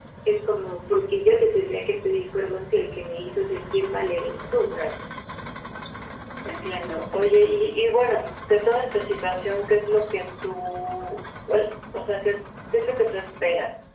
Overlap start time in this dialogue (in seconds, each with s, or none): none